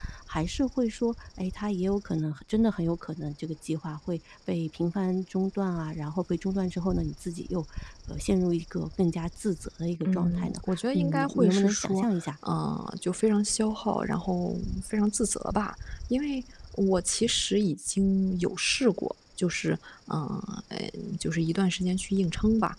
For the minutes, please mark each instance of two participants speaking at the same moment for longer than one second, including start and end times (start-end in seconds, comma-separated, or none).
10.0-12.3